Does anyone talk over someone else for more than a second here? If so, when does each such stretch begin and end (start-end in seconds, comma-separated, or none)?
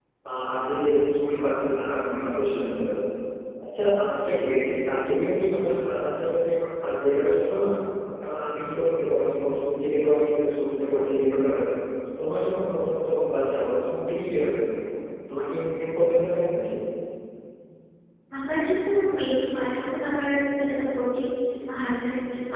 none